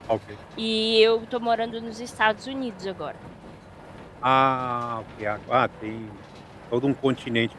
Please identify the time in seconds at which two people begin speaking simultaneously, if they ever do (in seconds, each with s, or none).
none